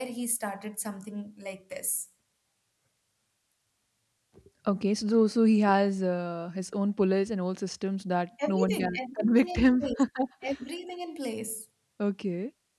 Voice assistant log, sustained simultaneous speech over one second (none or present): present